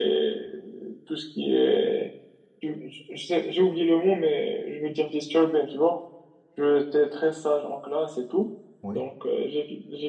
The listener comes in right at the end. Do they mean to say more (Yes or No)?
No